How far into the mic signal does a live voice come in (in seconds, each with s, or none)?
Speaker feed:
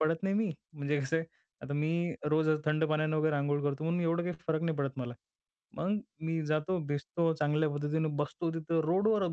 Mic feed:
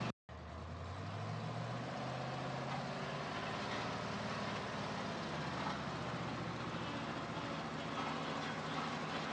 none